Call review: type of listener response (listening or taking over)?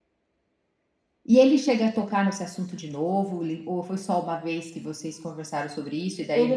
taking over